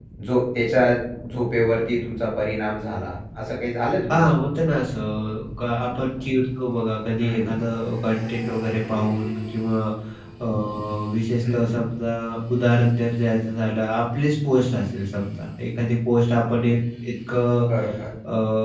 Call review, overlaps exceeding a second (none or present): none